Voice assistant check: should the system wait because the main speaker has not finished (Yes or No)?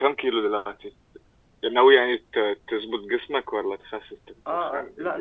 No